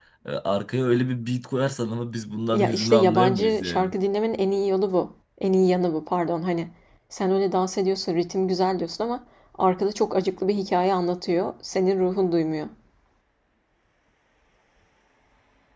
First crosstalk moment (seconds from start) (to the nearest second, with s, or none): 3 s